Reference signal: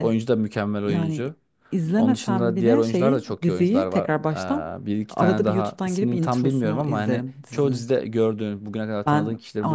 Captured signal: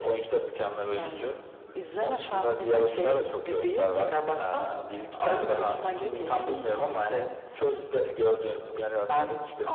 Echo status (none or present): present